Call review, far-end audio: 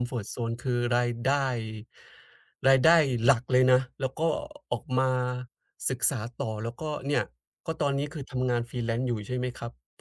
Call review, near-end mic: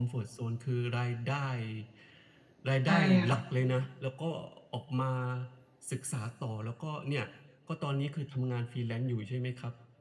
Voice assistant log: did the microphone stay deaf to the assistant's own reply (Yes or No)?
No